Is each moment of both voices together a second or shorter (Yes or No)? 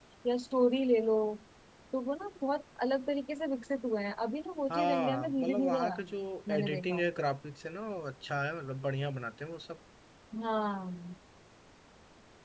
No